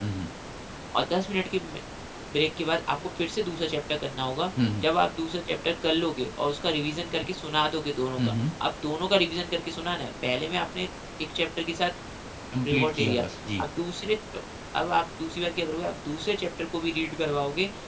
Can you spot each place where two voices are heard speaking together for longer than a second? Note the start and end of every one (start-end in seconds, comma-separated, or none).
none